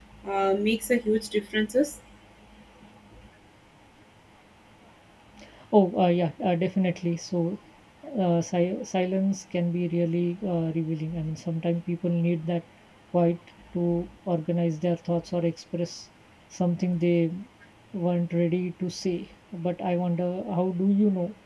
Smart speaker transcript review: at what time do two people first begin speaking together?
none

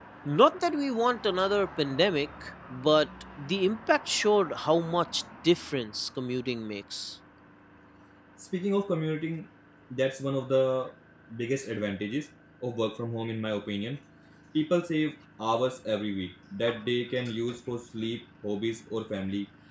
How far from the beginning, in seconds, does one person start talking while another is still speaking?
none

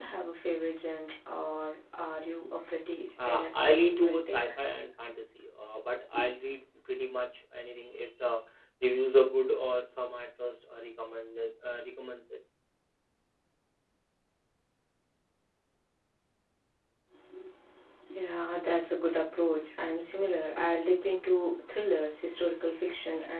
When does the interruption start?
3.2 s

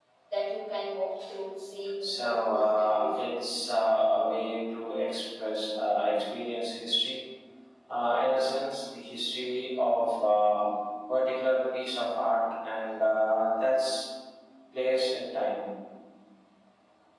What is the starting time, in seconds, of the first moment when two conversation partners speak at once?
2.0 s

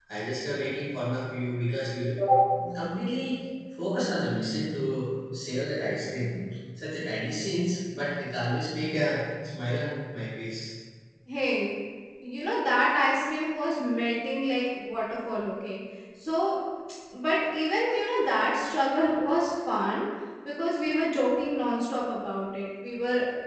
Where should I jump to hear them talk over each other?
none

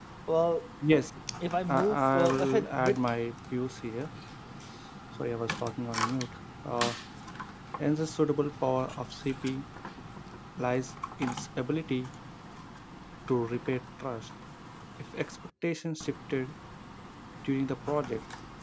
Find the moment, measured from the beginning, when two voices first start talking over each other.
1.7 s

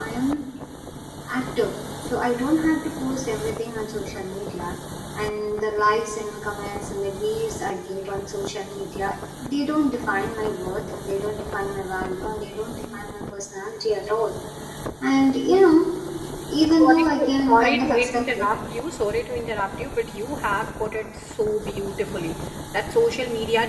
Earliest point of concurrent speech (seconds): 16.8 s

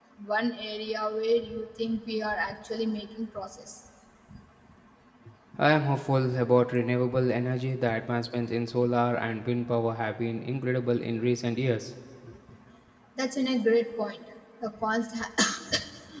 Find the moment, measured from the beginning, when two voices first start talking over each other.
none

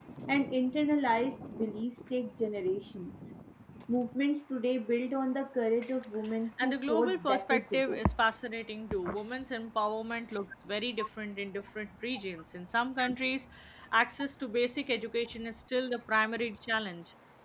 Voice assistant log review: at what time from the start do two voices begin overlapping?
6.6 s

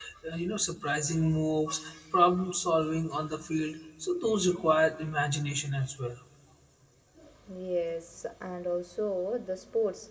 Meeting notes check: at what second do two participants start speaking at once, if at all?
none

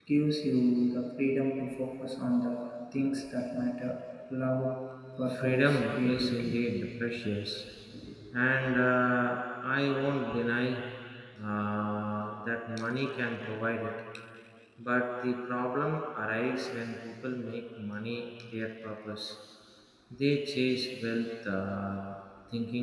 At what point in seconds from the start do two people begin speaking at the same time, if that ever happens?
5.3 s

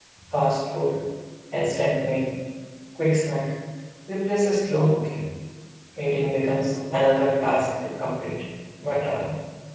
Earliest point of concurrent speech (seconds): none

